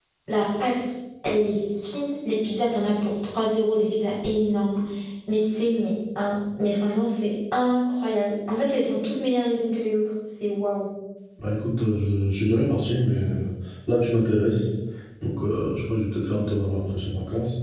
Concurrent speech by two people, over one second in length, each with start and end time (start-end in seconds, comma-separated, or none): none